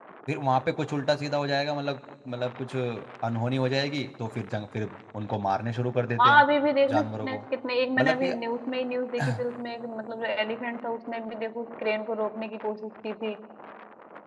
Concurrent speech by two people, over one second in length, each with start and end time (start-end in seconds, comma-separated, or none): none